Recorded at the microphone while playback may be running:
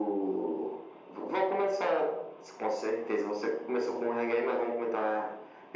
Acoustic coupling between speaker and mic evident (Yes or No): Yes